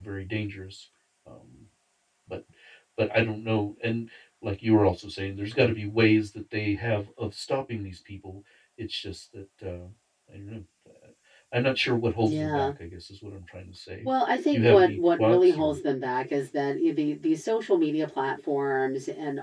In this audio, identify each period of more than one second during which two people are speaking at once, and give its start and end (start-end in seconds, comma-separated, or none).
14.5-15.8